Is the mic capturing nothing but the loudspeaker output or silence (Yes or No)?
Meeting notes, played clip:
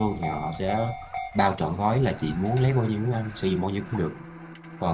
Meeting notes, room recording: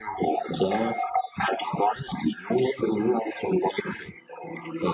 Yes